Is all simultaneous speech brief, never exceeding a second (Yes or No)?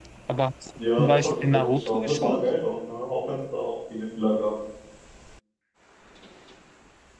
No